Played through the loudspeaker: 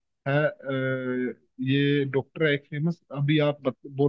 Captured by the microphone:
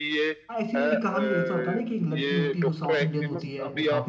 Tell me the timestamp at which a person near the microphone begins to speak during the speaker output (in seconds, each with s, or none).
0.5 s